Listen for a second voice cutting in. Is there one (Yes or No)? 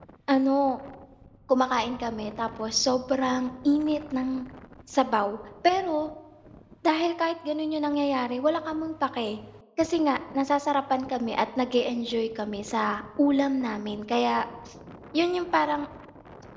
No